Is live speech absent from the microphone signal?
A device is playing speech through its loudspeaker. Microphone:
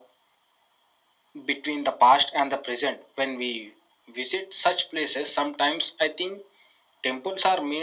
Yes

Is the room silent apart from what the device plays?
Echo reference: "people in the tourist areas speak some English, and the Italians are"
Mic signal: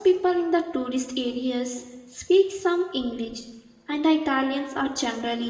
Yes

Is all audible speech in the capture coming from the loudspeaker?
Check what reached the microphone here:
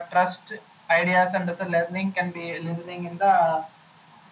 Yes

